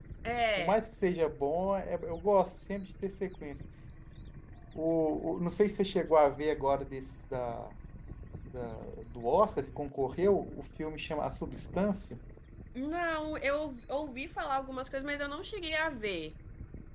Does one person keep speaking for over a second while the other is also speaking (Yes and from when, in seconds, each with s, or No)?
No